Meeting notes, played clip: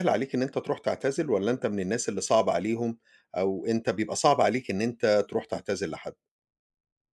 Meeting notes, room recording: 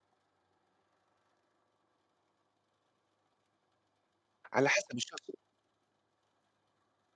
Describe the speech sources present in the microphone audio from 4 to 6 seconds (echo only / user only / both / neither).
user only